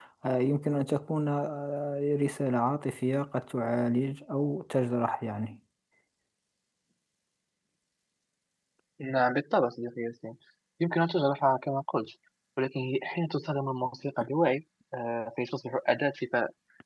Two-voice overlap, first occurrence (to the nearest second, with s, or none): none